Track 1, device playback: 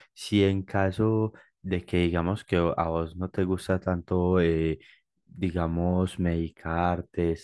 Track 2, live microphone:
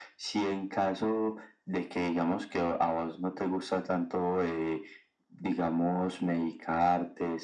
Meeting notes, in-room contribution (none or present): none